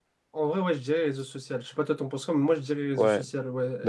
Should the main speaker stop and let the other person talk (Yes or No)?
Yes